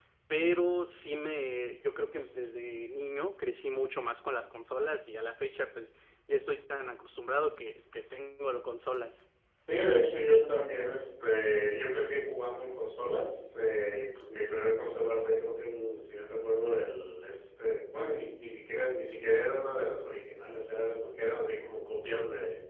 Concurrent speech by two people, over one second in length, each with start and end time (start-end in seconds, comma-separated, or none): none